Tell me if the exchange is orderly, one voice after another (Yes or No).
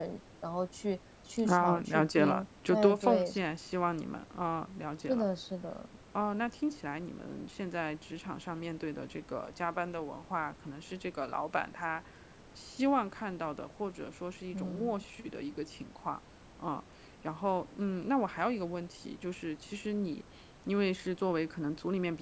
No